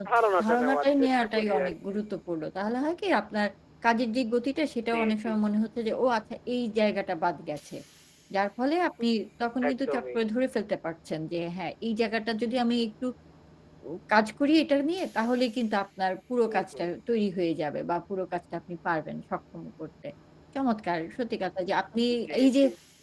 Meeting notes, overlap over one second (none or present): present